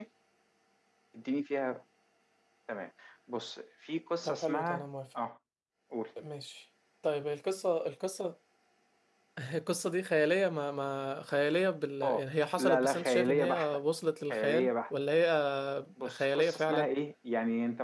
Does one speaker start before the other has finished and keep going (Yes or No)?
Yes